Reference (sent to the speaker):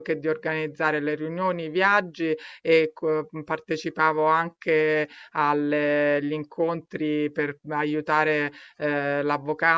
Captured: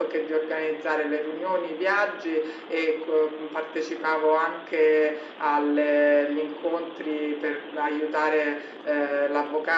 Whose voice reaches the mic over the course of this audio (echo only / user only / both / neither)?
echo only